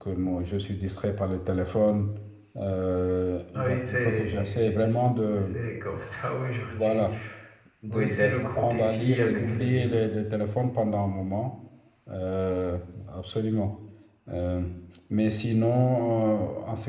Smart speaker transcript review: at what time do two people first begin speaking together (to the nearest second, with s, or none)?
4 s